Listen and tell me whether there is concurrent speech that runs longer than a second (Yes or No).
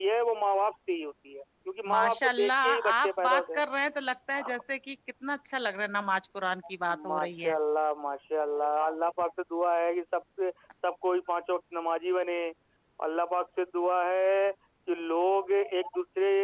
Yes